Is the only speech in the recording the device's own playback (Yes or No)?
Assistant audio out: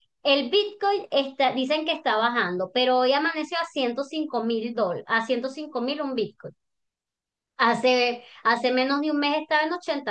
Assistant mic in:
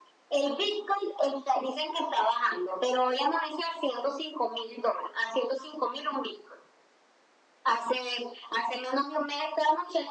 Yes